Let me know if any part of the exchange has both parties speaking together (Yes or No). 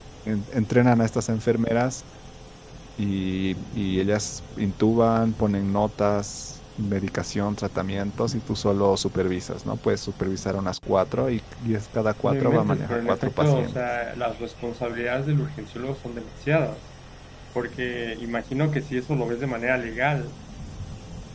Yes